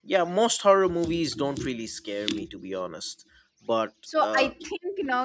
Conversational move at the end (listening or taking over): taking over